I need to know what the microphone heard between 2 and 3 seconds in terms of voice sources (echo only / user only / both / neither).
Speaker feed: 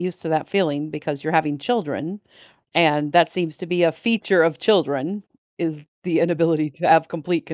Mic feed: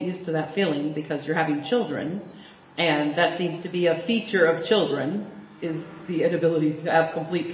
echo only